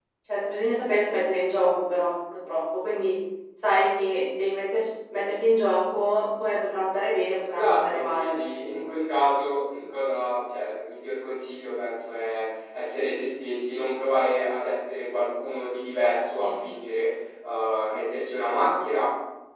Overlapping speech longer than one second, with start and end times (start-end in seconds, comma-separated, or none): 7.4-8.8